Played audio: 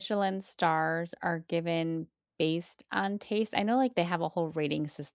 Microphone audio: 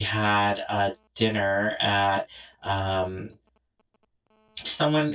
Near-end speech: present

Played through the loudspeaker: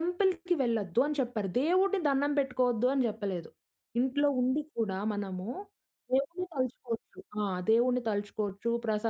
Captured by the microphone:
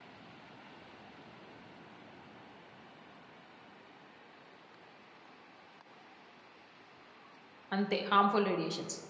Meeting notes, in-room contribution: present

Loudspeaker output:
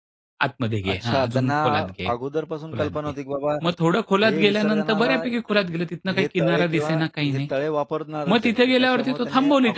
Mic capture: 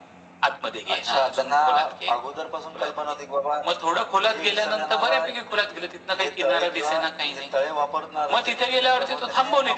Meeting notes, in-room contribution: none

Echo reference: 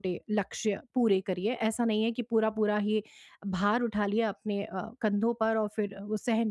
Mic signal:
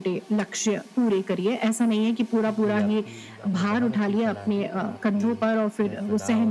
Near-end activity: present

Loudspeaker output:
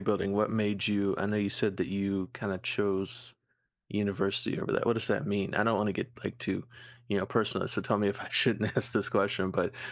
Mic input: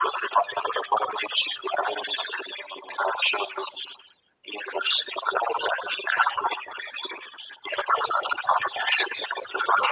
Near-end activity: none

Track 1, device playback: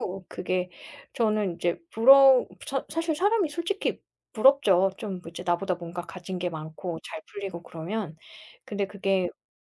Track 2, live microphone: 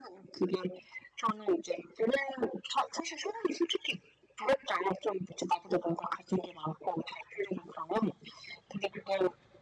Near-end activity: none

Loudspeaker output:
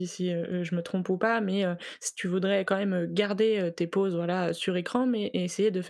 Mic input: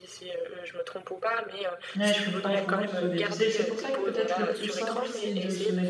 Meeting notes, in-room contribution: present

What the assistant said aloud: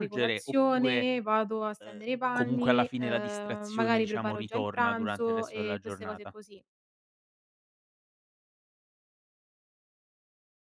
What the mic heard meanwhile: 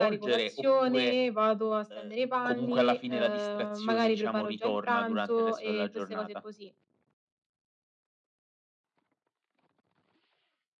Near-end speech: none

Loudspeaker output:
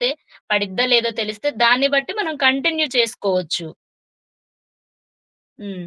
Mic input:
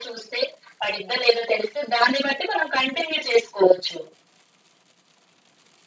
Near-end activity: none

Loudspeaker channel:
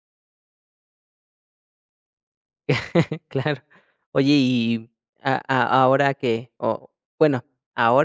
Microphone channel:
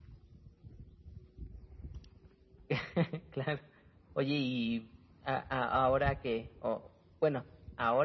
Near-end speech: none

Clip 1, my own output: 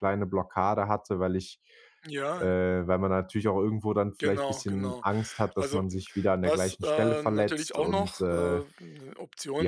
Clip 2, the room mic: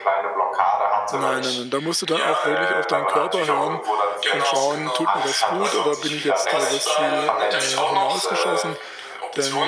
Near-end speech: present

